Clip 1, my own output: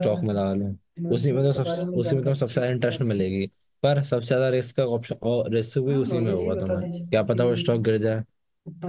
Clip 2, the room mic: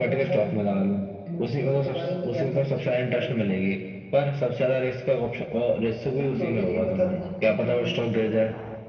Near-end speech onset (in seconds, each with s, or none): none